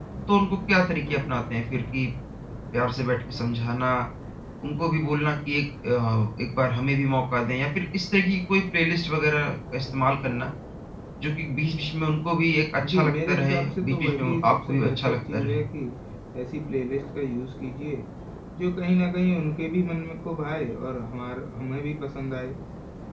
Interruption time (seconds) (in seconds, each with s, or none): 12.8 s